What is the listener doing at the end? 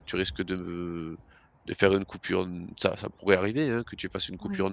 listening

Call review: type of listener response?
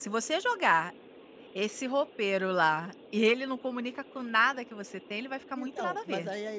taking over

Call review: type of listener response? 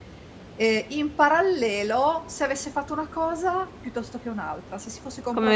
listening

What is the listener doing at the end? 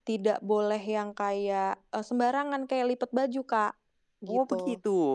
taking over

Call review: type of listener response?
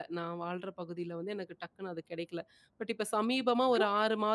listening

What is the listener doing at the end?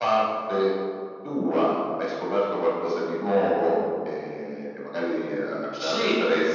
taking over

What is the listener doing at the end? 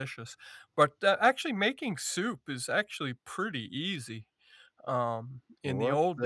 taking over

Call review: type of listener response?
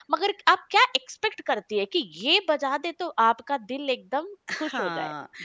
taking over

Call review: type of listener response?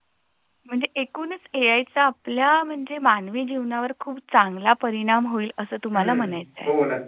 taking over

